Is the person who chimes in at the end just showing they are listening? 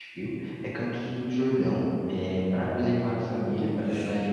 Yes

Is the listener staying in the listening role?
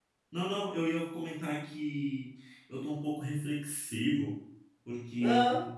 Yes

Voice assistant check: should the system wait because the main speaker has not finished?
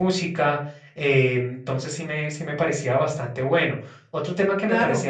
Yes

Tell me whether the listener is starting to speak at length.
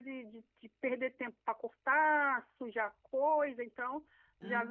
No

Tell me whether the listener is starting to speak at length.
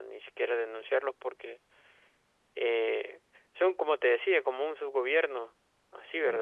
No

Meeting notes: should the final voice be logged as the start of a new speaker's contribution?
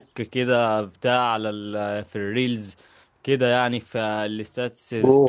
Yes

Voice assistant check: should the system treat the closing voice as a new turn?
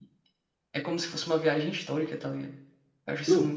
Yes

